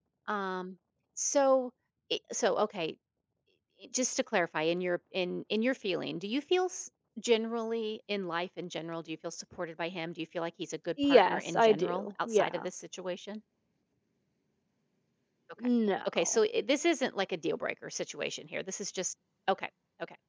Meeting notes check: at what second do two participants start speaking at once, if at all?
11.0 s

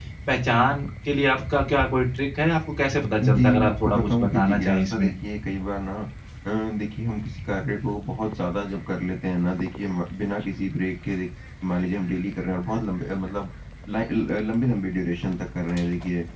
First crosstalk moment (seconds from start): 3.2 s

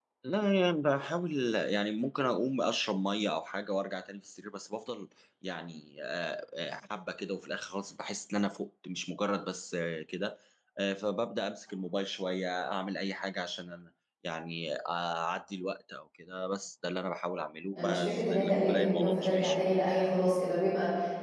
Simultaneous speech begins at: 17.7 s

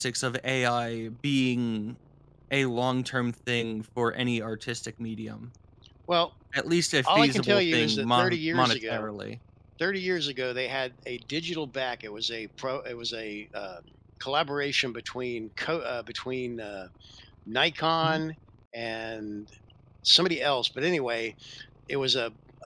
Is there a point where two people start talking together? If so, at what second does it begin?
7.0 s

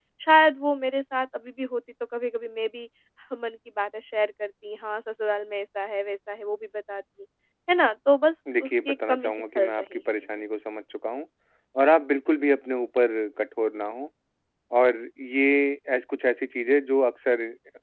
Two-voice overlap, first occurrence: 8.5 s

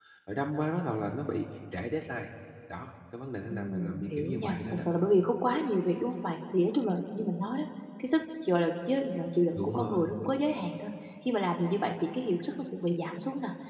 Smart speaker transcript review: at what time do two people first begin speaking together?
3.5 s

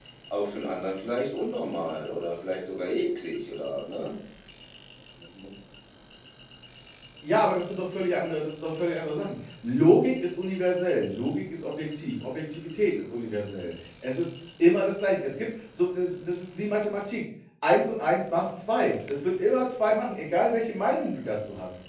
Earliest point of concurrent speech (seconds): none

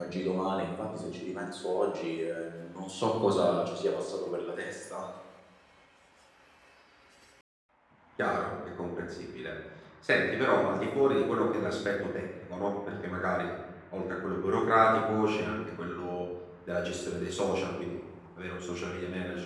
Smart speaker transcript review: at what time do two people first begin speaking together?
none

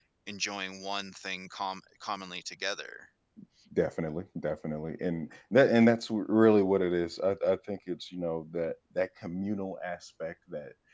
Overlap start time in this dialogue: none

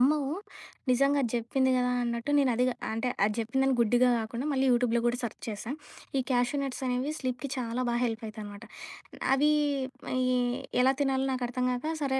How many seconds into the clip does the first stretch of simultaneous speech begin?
none

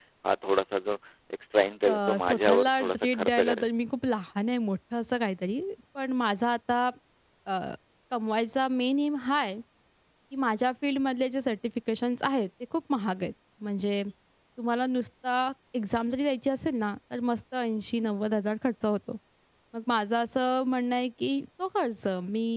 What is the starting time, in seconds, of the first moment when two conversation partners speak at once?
1.9 s

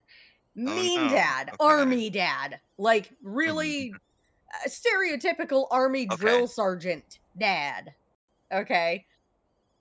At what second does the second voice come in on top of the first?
0.6 s

